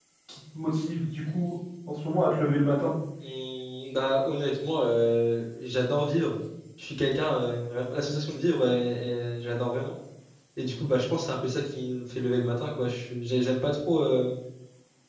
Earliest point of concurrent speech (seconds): none

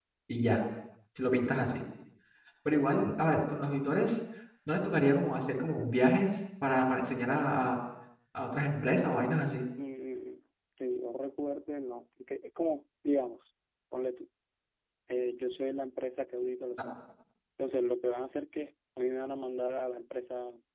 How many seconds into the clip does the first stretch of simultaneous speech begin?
none

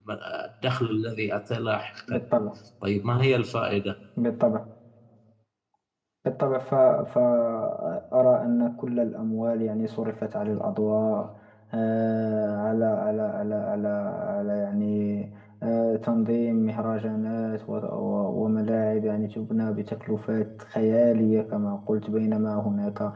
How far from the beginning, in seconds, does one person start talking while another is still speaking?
none

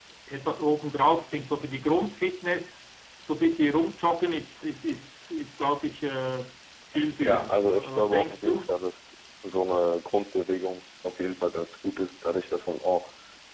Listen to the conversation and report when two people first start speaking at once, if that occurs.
7.2 s

